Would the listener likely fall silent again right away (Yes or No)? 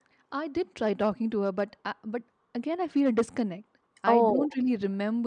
Yes